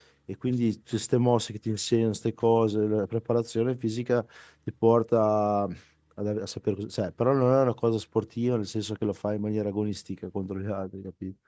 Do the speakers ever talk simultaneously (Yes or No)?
No